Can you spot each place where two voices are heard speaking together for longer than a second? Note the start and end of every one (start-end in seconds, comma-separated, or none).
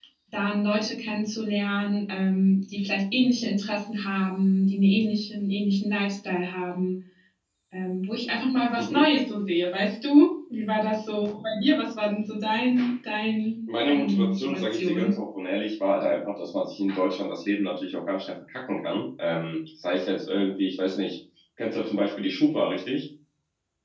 13.8-15.2